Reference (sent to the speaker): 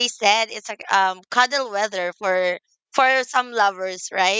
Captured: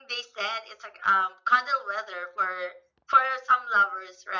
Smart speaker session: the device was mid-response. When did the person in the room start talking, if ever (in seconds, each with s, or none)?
none